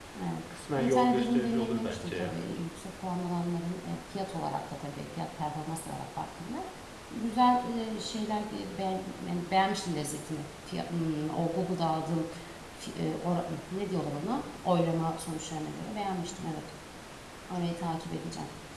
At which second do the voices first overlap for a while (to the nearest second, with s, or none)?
1 s